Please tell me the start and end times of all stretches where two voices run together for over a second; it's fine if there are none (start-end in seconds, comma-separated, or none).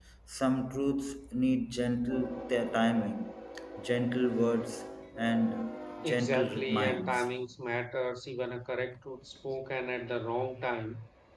6.0-7.2